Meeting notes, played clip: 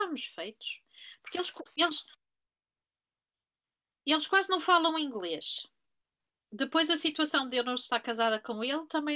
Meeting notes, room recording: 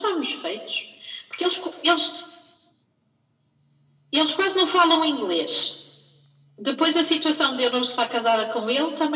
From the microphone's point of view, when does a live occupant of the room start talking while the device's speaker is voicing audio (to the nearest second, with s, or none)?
none